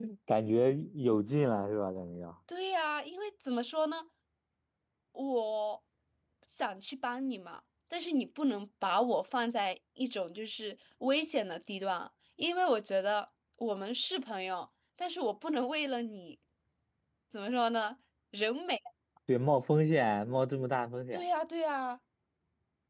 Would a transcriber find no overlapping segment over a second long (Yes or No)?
Yes